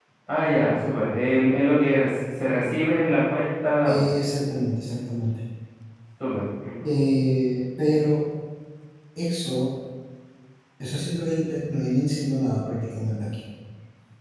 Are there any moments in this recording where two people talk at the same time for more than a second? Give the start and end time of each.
none

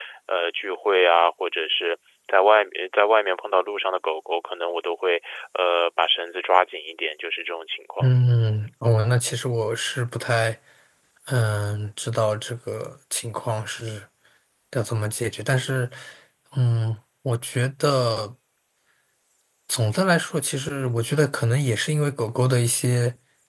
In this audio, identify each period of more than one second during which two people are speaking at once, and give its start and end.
none

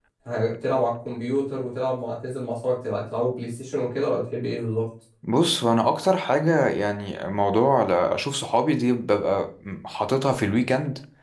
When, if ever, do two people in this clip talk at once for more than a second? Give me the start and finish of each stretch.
none

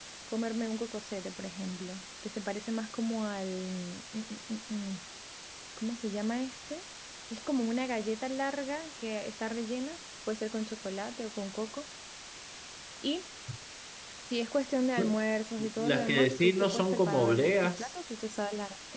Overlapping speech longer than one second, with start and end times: 15.8-17.9

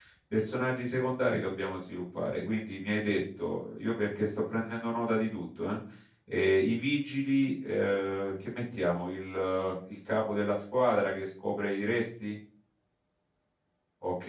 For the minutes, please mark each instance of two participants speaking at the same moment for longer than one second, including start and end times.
none

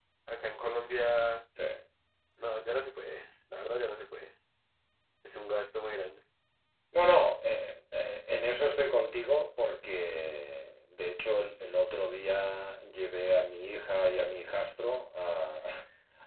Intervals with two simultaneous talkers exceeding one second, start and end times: none

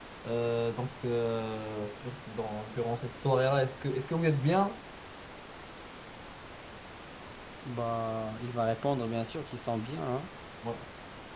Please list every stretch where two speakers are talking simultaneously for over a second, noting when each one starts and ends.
none

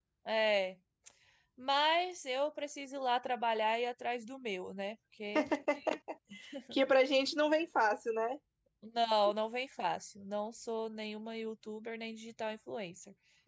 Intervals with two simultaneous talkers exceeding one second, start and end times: none

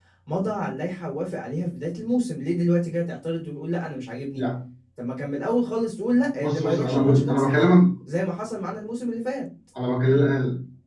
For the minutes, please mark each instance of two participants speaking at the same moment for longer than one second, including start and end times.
6.3-7.8

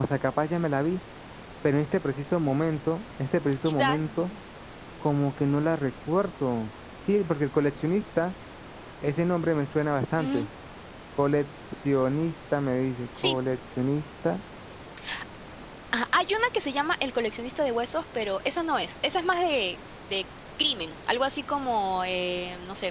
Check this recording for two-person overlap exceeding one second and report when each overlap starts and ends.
none

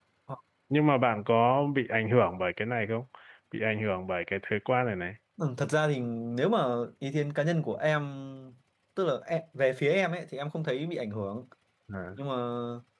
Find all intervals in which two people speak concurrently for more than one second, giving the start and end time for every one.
none

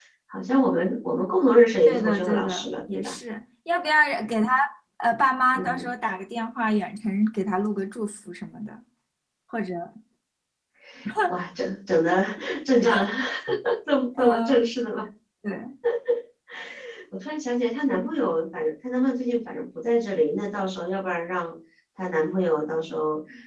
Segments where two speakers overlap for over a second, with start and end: 1.9-3.1

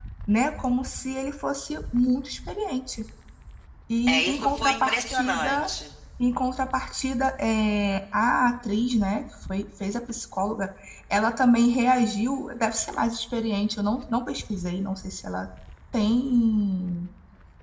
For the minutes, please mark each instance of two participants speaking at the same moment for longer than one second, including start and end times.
4.1-5.7

